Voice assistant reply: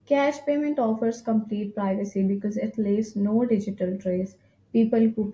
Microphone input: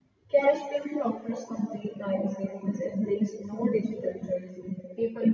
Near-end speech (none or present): none